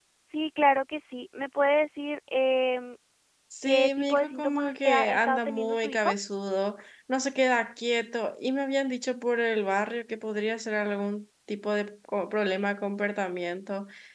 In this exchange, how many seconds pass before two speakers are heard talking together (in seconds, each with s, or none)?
3.6 s